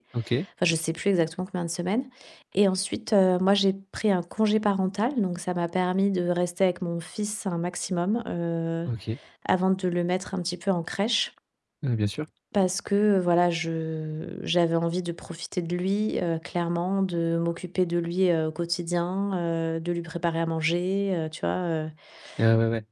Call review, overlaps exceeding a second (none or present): none